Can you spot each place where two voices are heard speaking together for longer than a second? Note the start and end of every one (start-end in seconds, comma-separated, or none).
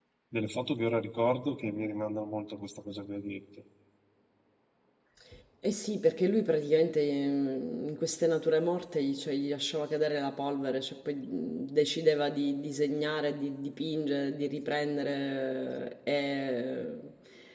none